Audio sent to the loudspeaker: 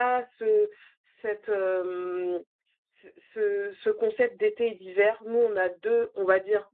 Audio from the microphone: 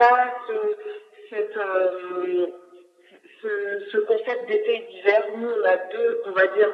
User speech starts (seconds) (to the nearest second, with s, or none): none